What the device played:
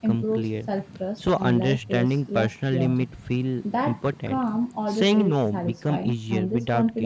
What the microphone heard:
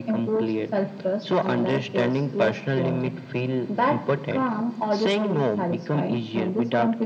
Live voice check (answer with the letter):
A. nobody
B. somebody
A